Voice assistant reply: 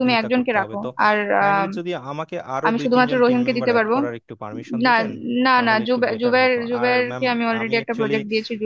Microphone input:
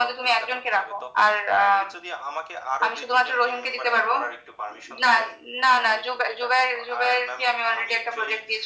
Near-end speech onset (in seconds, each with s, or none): none